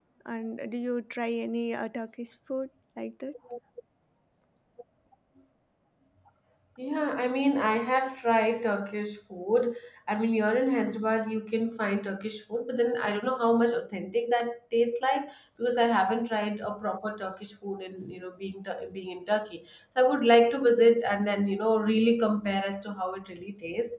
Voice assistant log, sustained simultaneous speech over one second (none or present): none